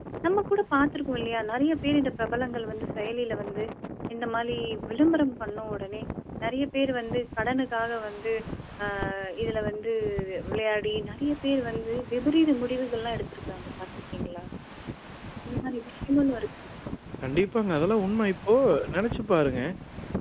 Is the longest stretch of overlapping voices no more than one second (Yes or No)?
Yes